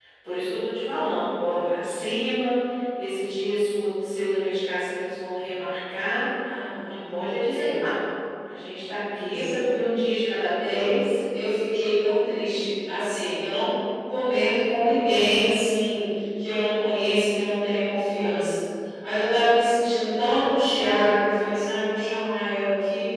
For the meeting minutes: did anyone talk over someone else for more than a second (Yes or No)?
No